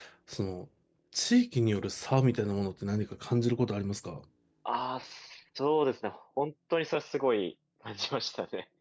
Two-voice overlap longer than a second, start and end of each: none

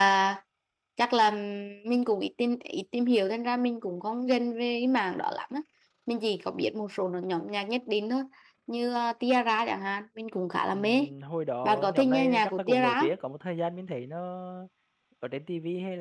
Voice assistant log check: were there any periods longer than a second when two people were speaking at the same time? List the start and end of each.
11.6-13.0

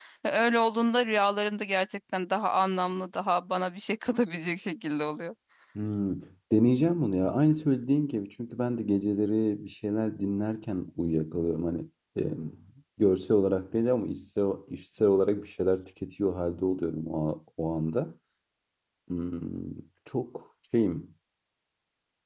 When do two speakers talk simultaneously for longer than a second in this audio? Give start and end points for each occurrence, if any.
none

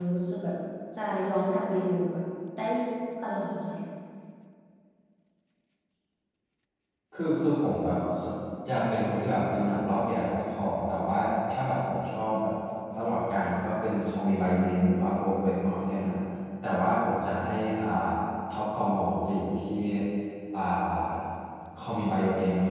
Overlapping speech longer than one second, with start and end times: none

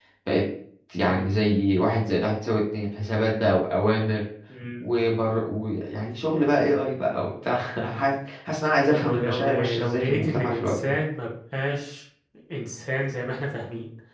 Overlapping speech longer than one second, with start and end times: 8.9-11.0

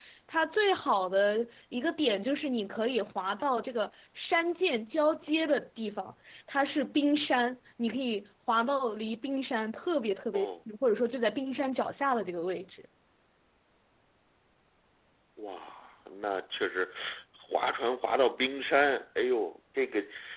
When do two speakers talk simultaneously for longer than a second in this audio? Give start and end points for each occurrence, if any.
none

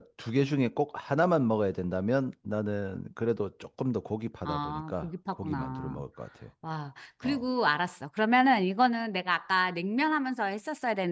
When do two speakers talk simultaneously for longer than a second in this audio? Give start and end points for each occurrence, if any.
4.5-6.0

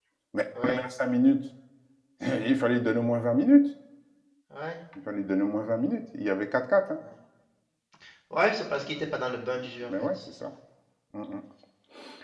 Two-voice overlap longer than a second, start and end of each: none

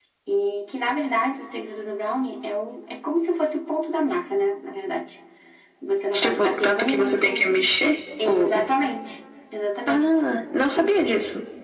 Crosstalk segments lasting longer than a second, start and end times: 6.1-7.5

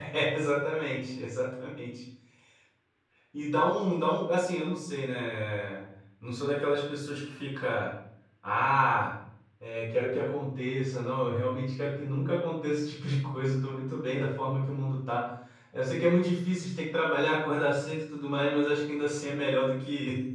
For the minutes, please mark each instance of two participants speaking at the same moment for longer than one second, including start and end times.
none

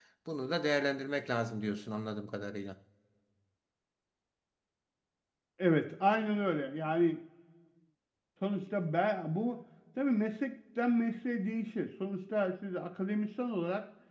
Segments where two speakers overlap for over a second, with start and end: none

